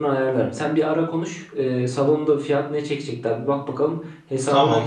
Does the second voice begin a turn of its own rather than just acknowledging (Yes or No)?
No